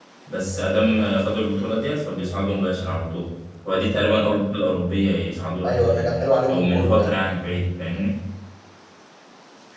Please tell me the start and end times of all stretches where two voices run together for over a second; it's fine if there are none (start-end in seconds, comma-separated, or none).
5.6-7.1